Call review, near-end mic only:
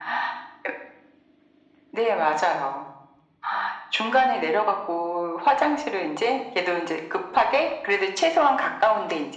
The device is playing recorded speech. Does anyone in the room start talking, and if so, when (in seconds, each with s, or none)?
none